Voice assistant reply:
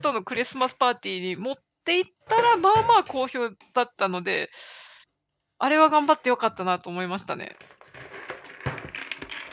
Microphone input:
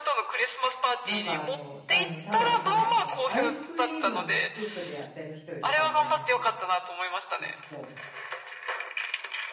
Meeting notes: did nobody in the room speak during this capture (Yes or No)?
No